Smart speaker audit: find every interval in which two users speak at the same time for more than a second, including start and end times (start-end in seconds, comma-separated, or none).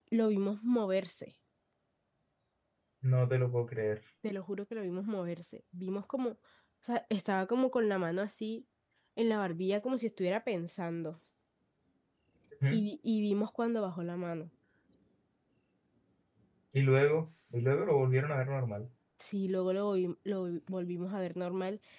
none